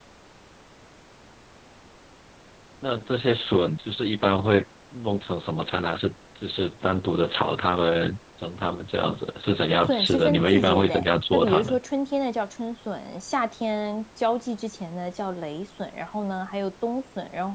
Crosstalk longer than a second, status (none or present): present